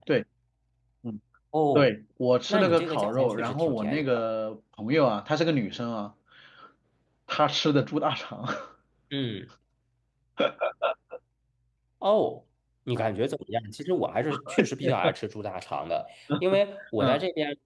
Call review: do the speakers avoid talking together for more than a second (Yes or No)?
No